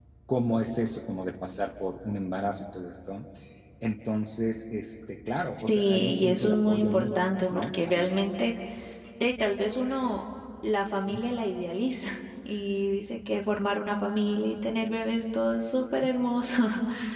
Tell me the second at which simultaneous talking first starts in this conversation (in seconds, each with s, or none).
5.6 s